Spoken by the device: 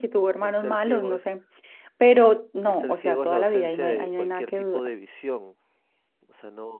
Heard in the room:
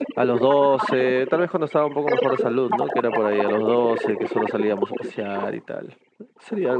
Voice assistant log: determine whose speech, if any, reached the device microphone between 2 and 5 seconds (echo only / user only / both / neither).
both